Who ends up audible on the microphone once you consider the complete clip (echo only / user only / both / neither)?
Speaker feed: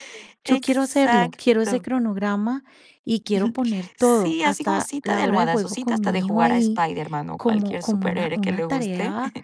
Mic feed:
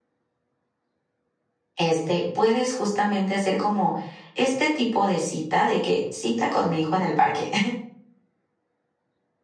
user only